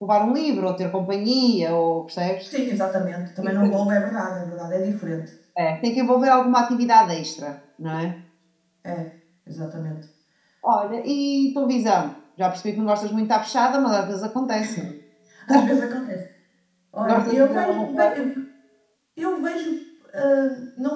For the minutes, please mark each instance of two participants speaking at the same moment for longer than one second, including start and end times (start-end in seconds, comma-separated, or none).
17.0-18.3